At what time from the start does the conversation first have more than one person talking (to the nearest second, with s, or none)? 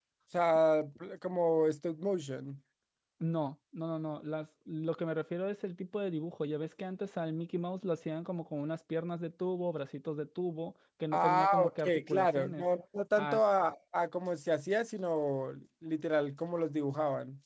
11 s